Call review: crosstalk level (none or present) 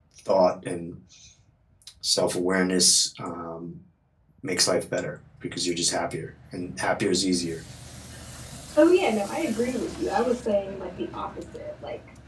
none